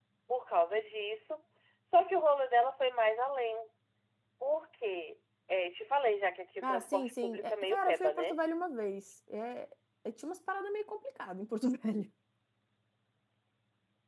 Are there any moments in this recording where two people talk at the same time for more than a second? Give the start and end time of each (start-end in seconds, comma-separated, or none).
6.6-8.4